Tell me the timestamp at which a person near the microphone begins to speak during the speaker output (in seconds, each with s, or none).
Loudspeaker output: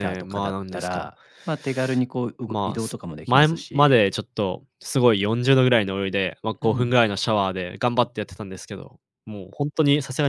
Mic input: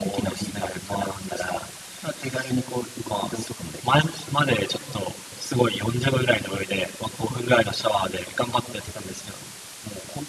none